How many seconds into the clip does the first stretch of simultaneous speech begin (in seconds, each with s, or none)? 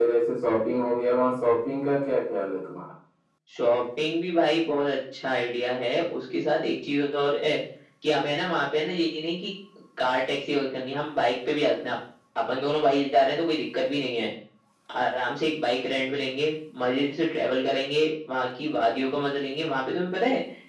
none